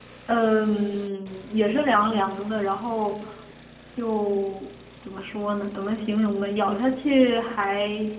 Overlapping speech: No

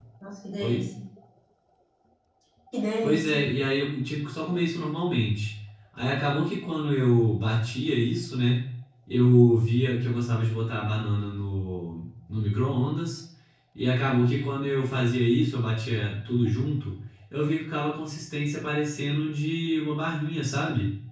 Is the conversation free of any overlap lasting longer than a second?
Yes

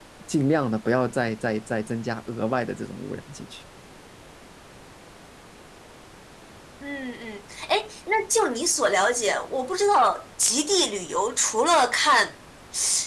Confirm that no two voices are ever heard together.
Yes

